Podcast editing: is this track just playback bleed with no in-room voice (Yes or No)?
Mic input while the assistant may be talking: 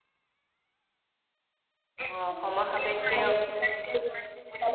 No